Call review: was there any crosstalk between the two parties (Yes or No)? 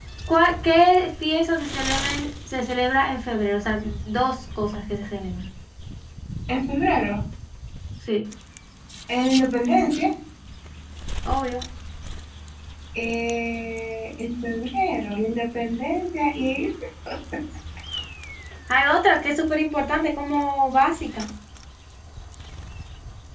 No